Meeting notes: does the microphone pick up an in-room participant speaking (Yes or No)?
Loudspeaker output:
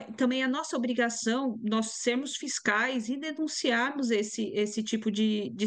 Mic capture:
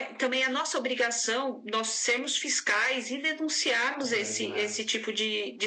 Yes